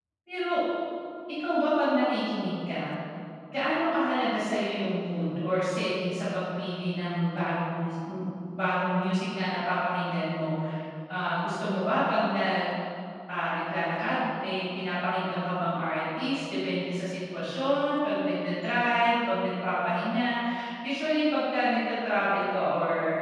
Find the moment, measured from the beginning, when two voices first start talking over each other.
none

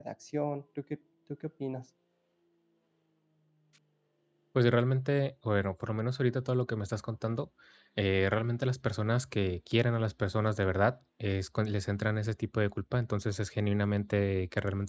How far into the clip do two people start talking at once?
none

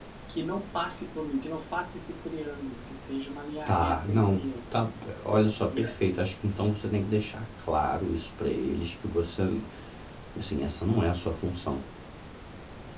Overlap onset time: 3.7 s

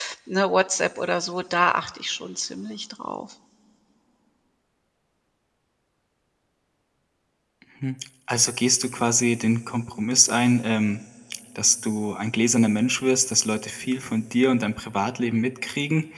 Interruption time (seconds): none

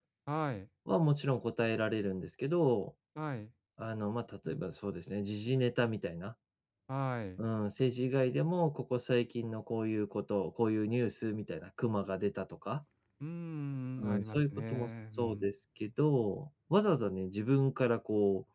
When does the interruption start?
14.0 s

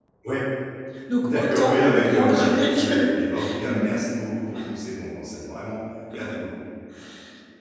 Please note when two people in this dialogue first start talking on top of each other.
1.2 s

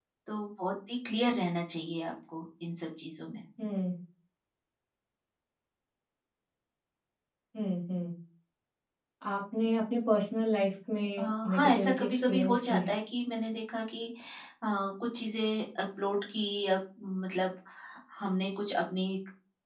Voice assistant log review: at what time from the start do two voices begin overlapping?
11.2 s

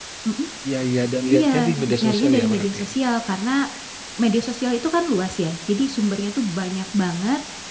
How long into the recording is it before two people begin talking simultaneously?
1.3 s

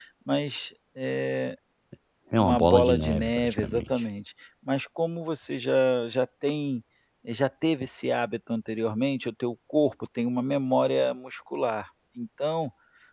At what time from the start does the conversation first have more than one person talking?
2.4 s

